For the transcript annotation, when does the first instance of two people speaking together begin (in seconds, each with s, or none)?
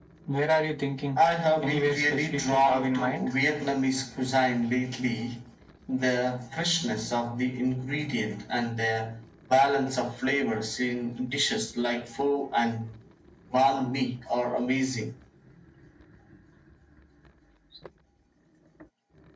1.6 s